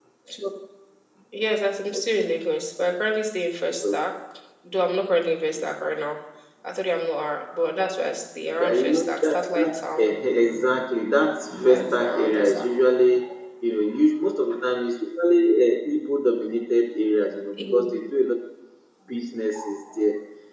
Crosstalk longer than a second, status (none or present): present